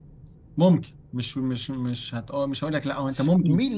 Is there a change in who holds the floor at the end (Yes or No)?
Yes